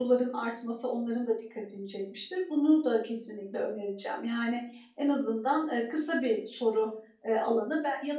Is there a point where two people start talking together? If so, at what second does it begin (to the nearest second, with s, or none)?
none